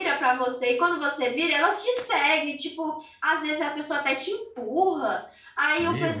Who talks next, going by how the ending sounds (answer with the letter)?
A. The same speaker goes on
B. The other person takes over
A